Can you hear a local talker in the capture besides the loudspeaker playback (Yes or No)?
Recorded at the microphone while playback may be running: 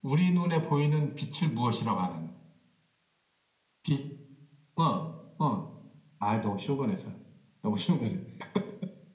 No